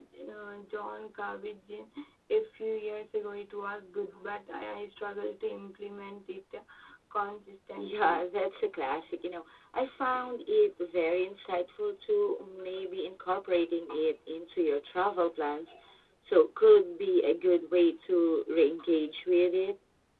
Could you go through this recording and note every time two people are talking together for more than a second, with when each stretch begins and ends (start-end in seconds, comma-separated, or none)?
none